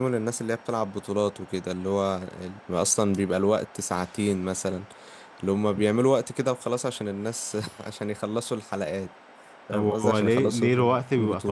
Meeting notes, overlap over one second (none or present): present